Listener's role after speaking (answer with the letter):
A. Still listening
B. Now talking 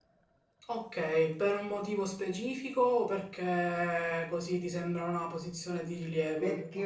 B